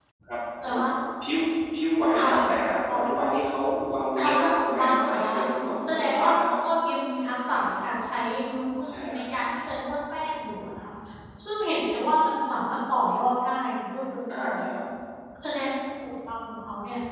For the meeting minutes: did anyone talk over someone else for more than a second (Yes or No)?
Yes